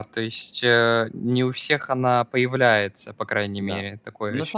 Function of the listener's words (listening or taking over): taking over